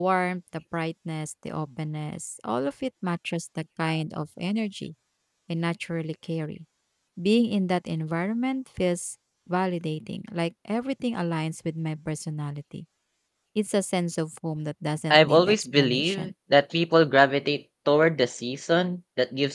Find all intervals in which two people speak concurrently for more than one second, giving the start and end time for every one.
15.1-16.3

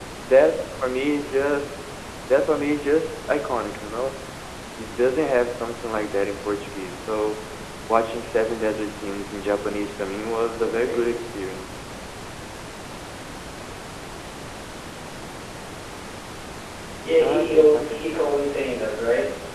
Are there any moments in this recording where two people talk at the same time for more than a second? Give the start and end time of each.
17.2-18.6

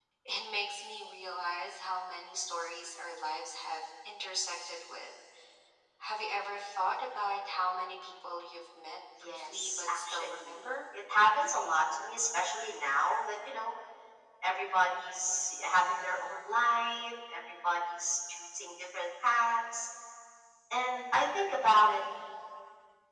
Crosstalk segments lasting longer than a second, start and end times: 9.2-10.6

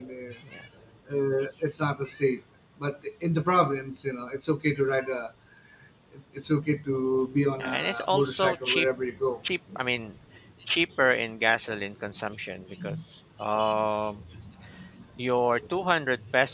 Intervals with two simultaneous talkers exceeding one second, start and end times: 7.6-8.8

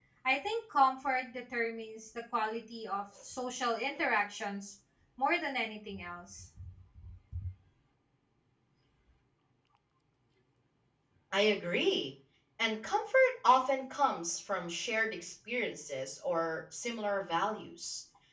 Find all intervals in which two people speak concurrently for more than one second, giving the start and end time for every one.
none

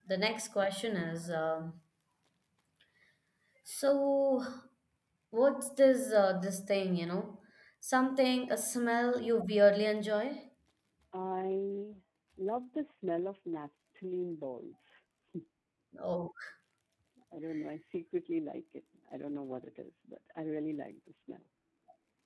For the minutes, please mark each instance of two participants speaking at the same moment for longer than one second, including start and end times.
none

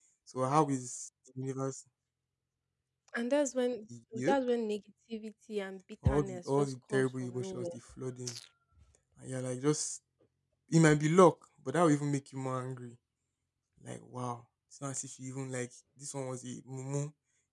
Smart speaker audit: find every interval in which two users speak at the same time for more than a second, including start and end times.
6.0-7.7

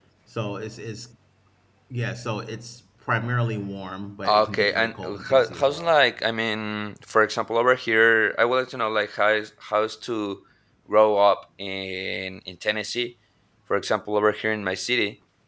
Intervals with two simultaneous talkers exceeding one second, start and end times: 4.2-5.9

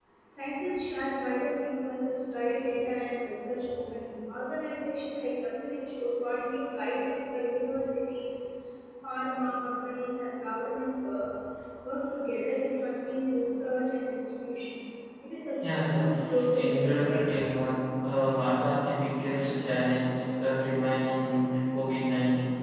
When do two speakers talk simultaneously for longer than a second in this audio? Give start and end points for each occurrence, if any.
16.0-17.3

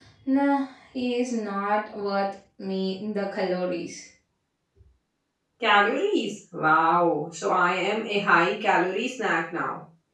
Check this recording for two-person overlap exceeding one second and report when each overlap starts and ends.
none

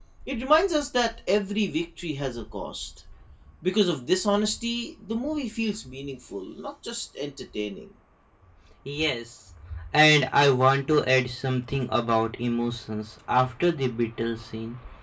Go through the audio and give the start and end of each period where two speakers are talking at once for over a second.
none

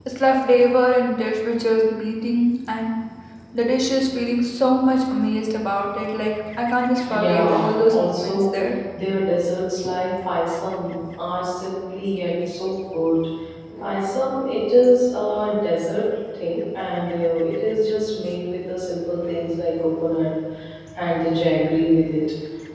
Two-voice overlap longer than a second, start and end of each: 7.1-8.5

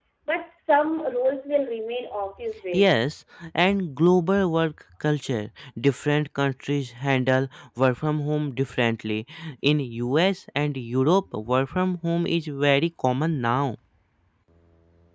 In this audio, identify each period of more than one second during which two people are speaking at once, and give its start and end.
none

